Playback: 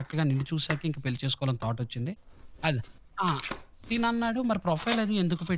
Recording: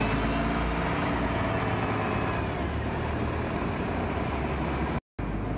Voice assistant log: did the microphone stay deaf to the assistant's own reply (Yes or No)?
Yes